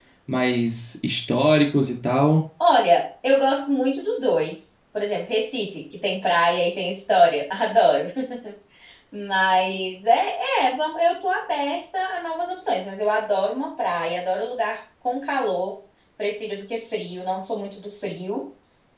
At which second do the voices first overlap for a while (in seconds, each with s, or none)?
none